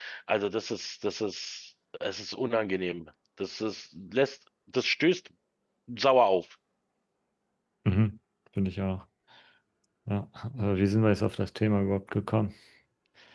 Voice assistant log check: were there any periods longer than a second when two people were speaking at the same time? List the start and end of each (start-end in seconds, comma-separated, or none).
none